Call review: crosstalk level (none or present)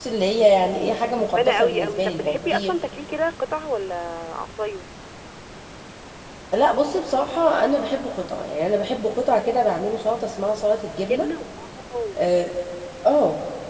present